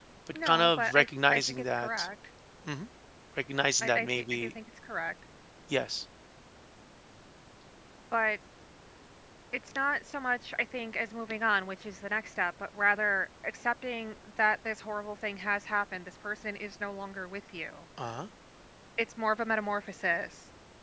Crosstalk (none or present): present